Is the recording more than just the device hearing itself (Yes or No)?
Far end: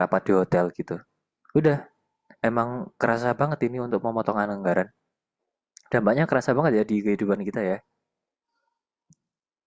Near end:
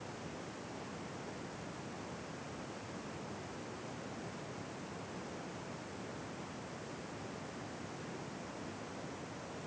No